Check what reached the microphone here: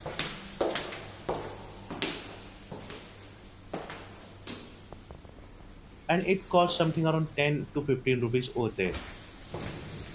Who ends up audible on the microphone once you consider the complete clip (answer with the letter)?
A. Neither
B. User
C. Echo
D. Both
B